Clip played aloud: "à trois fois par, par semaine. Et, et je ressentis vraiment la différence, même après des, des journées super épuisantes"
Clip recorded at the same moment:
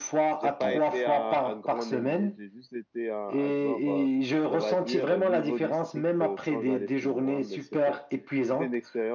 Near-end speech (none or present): present